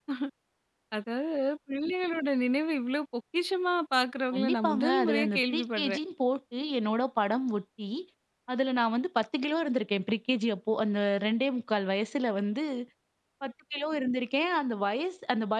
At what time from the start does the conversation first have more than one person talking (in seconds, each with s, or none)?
4.3 s